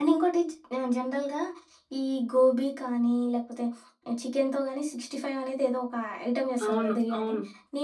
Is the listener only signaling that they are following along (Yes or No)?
Yes